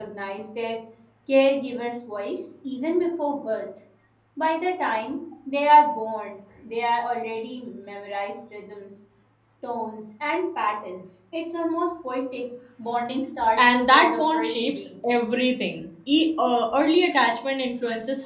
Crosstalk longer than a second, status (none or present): present